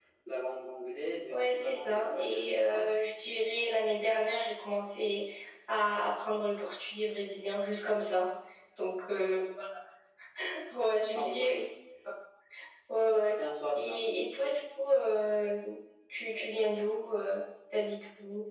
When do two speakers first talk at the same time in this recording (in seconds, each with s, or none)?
1.3 s